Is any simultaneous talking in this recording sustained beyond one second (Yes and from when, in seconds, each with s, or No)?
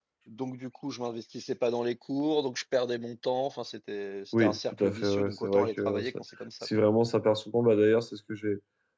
Yes, from 4.4 s